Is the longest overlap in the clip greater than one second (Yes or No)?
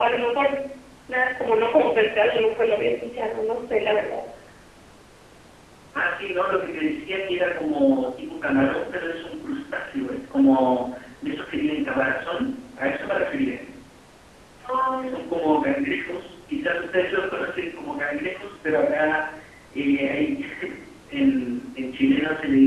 No